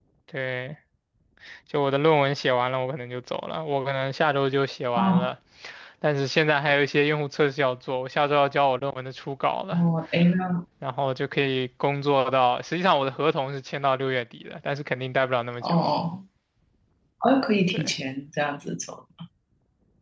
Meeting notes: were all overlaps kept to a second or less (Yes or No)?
Yes